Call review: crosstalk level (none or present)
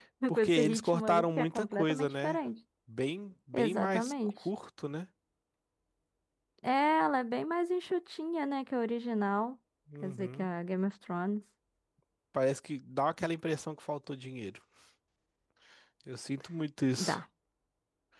present